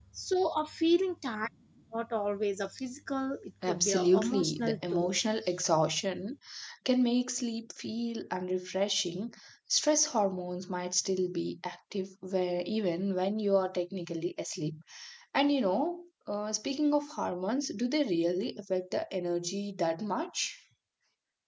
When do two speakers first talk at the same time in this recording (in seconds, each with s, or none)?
3.6 s